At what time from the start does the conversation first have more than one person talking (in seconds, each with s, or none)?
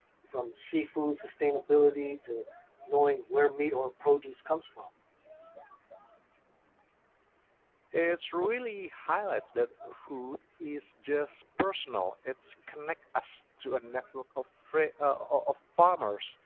none